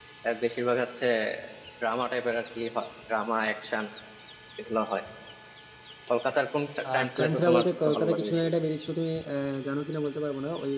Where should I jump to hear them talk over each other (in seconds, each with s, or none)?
6.9 s